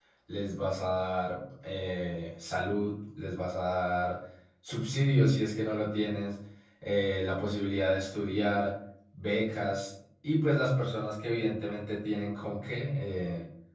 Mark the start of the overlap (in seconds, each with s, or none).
none